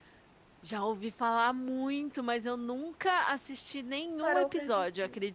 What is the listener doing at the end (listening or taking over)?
taking over